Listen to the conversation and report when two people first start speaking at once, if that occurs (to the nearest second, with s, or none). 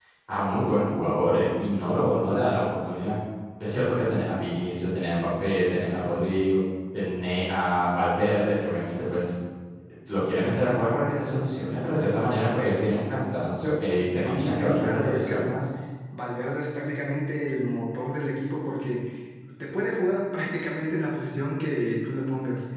14 s